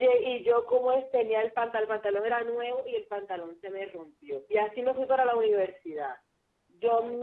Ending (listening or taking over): listening